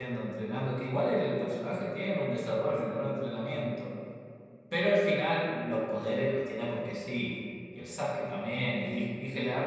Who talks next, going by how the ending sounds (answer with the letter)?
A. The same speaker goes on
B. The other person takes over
A